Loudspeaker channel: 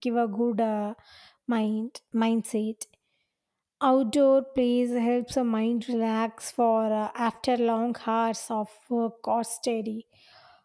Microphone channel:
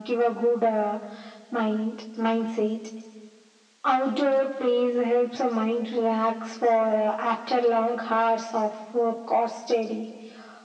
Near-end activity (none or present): none